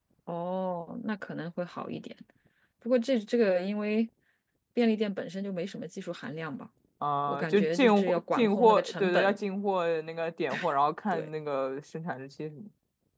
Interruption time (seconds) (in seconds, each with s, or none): 7.3 s